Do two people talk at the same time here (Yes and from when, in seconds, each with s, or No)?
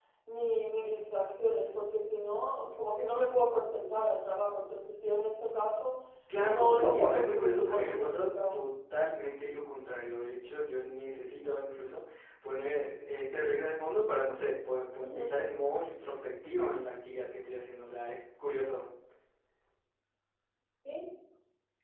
Yes, from 6.5 s